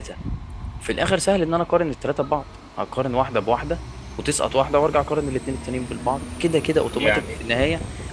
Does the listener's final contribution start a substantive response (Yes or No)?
No